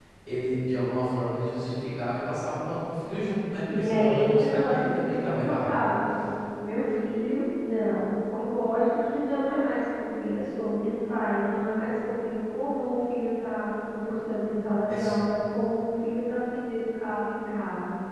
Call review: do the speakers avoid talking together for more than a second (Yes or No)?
No